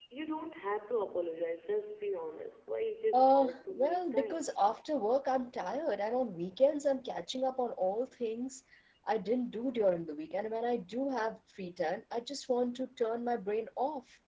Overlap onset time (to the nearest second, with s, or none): 3 s